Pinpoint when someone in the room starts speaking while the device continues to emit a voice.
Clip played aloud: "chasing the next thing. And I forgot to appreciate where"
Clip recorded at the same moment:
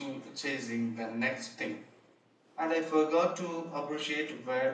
none

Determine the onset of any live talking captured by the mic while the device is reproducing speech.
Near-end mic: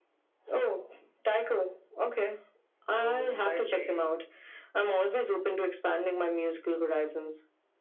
2.9 s

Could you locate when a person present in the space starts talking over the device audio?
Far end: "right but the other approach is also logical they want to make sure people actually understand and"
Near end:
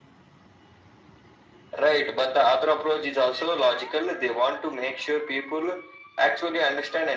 none

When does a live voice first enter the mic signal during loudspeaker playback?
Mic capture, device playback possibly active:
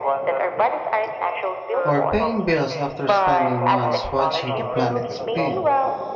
1.8 s

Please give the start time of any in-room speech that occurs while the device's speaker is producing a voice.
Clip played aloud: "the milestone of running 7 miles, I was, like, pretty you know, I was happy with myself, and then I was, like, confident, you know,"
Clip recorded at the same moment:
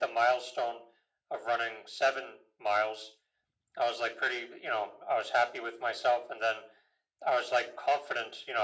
none

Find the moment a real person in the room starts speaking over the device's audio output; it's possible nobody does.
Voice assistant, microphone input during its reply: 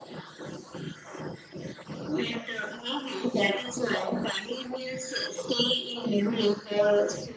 none

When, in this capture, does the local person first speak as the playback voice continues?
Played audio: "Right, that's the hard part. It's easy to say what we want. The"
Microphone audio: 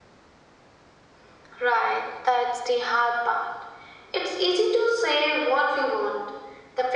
none

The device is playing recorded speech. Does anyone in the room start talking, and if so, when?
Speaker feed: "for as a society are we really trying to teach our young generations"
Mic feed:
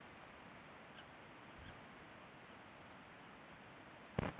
none

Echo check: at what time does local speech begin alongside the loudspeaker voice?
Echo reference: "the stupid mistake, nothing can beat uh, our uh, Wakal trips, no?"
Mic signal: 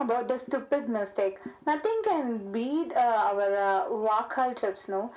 none

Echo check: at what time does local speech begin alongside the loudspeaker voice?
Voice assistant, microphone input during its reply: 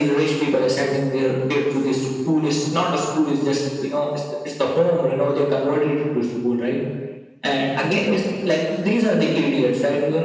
none

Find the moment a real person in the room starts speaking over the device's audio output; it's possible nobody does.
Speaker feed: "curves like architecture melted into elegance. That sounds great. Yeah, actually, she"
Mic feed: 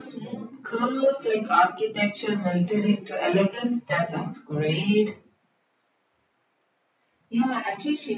none

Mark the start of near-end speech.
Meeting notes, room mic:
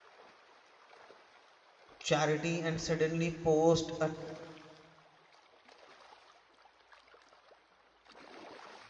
2.0 s

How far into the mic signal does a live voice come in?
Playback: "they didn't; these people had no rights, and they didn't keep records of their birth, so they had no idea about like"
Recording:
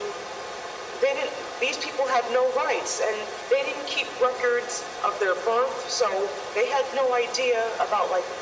none

